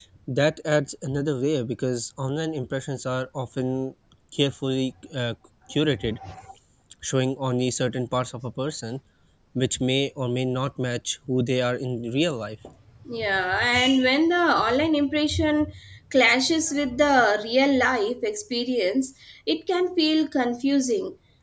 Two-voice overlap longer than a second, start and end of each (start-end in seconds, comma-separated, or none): none